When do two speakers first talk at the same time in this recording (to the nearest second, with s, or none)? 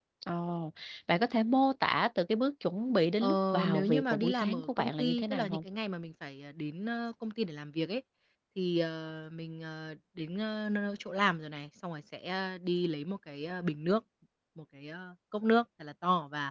3 s